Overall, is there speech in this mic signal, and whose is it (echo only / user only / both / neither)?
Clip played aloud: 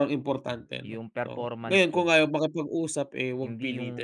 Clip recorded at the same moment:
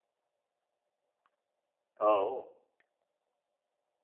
user only